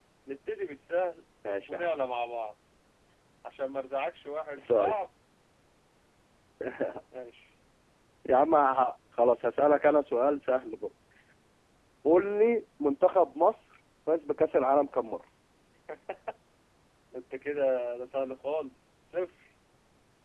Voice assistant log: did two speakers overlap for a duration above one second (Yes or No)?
No